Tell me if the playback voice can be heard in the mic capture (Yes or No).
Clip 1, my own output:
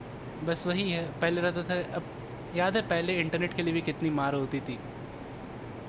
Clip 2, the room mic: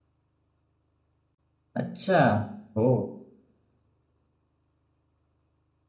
No